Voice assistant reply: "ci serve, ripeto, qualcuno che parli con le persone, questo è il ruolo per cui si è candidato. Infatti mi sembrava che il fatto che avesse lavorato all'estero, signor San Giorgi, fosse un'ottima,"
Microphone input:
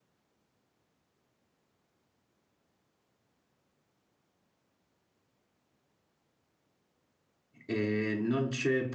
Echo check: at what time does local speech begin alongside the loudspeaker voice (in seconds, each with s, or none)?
7.7 s